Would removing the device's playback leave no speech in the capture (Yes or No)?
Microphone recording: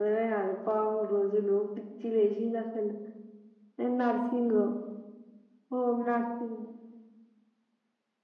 No